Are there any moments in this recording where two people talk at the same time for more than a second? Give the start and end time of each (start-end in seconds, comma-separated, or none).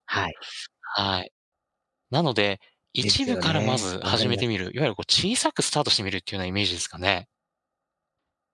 3.0-4.4